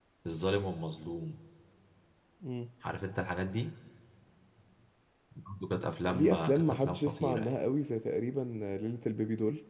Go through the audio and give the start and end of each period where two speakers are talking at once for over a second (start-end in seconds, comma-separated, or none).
6.1-7.5